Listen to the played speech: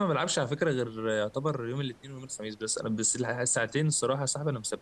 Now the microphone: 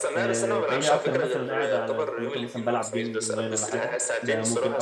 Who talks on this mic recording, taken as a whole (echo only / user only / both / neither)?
both